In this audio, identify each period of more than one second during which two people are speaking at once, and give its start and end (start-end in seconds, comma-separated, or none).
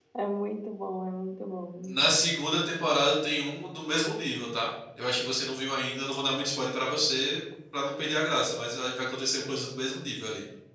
none